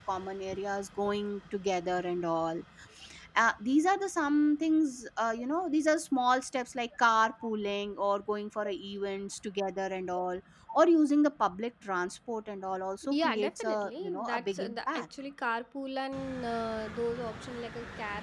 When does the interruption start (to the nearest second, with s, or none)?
13 s